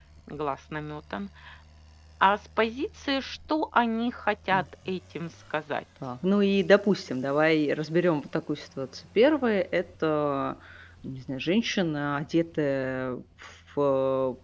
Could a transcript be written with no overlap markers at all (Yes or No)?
Yes